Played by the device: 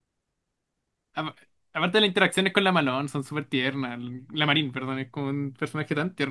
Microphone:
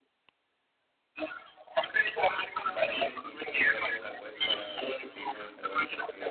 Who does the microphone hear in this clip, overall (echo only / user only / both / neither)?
both